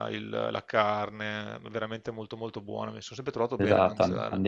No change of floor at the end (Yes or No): No